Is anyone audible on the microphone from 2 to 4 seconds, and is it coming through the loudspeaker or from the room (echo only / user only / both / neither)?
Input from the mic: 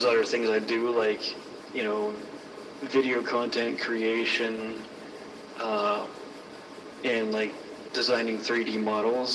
echo only